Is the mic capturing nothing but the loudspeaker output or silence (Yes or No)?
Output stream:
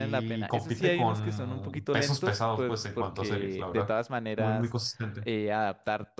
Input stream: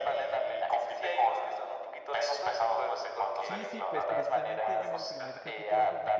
No